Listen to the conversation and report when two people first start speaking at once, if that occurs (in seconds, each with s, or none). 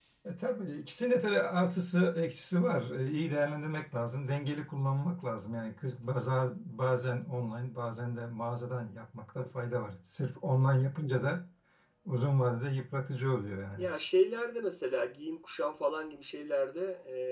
none